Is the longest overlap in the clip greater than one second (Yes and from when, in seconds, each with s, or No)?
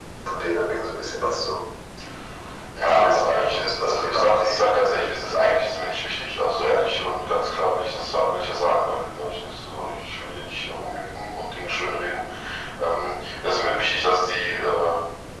Yes, from 2.9 s